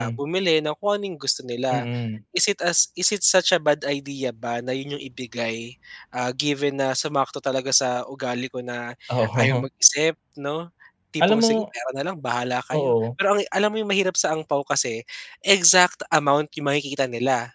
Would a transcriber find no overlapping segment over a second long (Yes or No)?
Yes